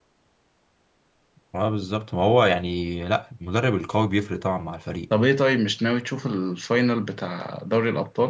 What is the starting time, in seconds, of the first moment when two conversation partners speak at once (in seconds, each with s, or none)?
none